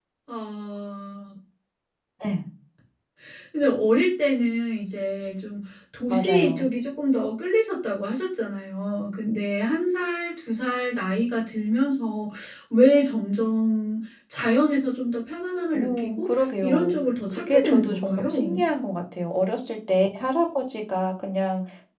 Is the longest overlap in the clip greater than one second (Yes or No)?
Yes